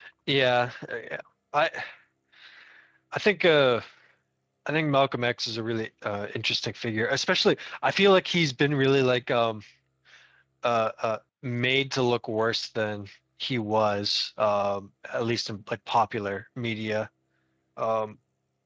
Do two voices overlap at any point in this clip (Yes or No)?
No